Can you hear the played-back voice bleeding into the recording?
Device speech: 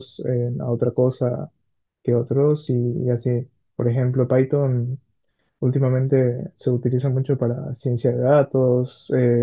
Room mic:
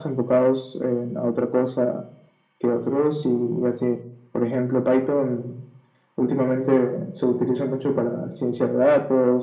Yes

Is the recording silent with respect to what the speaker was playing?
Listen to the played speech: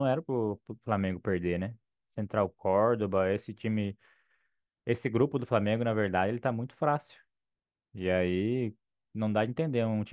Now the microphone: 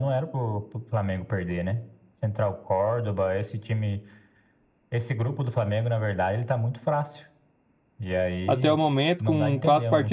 No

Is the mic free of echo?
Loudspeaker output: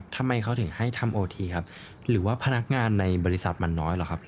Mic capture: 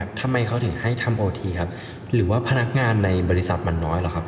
No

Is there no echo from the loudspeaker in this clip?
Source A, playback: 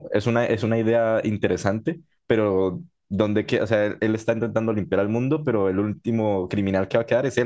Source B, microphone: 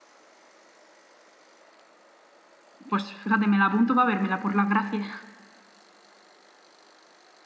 Yes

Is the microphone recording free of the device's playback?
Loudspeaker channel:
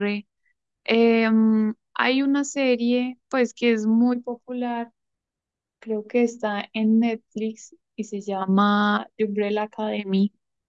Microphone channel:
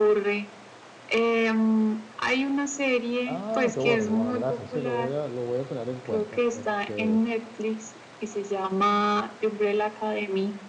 No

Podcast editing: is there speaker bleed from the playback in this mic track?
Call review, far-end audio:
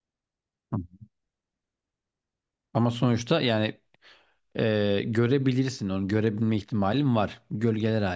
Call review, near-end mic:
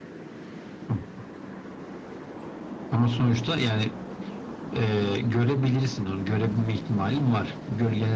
Yes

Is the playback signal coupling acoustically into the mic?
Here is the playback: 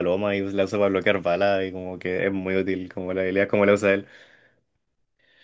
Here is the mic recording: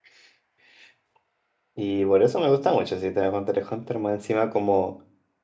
No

